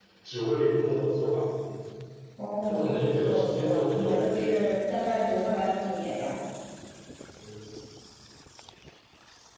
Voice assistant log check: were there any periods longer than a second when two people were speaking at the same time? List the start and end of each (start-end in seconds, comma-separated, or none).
2.7-4.5